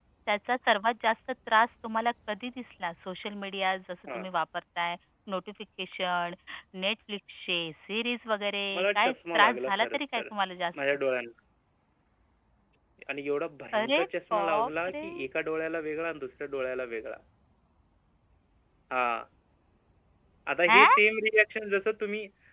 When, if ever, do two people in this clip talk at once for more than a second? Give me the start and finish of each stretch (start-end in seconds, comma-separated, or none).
8.8-10.2, 13.8-15.1